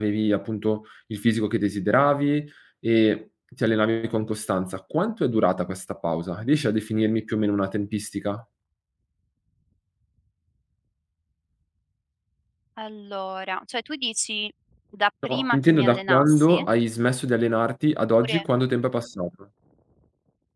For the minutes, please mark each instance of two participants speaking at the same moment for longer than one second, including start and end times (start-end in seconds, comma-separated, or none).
15.3-16.6